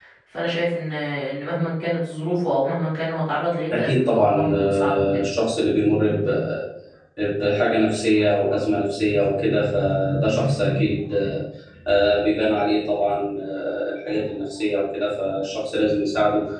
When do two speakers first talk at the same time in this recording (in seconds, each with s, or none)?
3.7 s